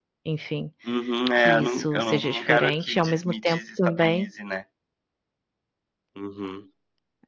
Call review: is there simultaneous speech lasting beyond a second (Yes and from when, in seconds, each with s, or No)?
Yes, from 1.4 s